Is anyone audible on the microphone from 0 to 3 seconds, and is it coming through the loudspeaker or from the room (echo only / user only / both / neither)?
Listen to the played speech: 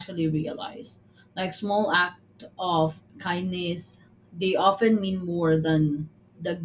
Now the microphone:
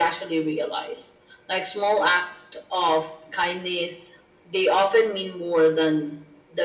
echo only